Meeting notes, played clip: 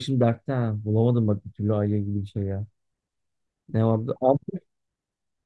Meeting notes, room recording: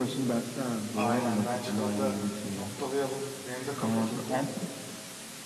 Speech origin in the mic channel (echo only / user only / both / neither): both